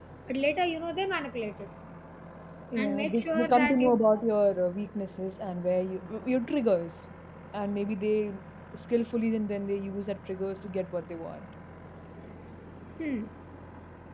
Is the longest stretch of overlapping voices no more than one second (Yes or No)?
No